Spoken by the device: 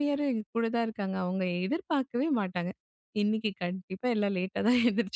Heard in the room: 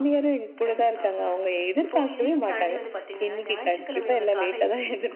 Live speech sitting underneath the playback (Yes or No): Yes